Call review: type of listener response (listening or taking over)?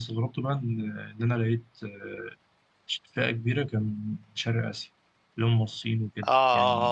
taking over